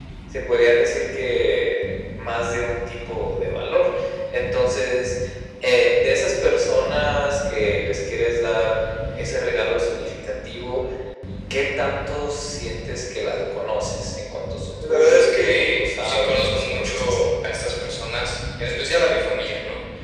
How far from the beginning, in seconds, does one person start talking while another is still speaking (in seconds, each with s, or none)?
14.8 s